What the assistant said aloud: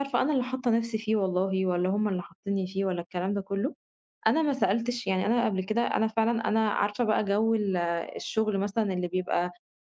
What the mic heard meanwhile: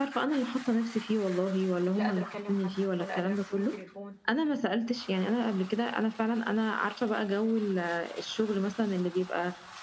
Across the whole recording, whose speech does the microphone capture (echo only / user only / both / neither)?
both